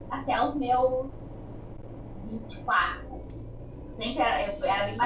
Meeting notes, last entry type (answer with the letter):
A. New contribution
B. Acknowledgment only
B